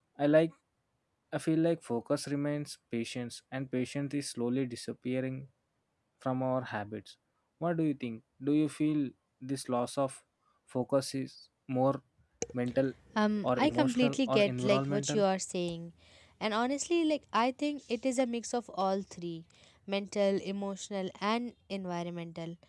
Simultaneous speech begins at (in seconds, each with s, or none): 13.4 s